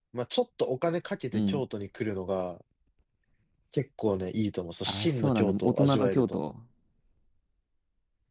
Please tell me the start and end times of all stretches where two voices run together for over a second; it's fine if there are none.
4.8-6.5

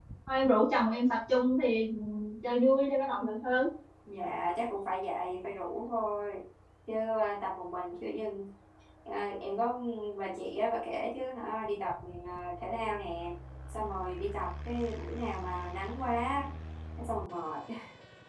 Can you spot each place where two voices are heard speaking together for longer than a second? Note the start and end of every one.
none

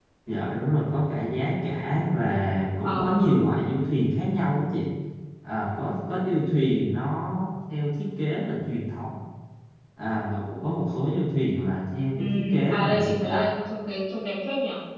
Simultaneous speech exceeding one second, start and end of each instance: 12.2-13.5

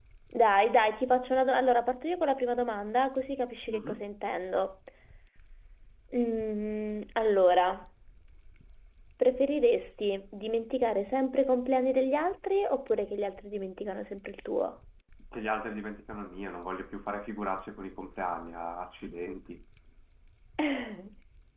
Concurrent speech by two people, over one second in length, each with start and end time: none

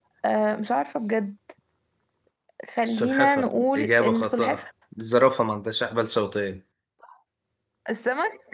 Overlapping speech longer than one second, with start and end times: 2.8-4.6

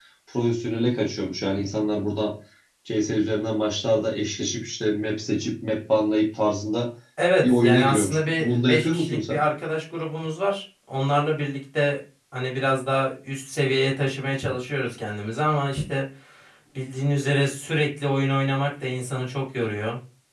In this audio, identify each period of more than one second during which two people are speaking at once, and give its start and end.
7.4-9.4

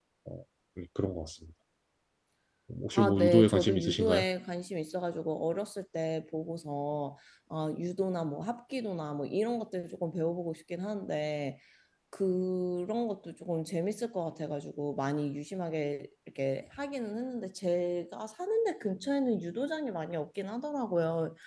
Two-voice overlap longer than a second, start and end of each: 3.0-4.2

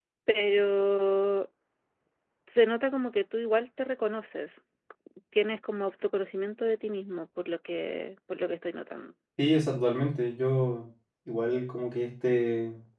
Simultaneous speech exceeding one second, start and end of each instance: none

